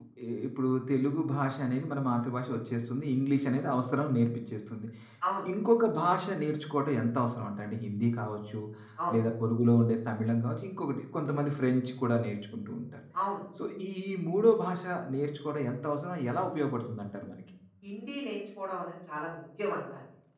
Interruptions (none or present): none